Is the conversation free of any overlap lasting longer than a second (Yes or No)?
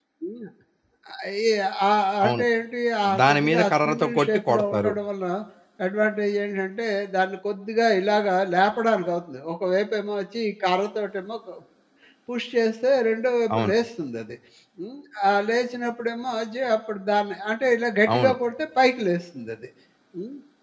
No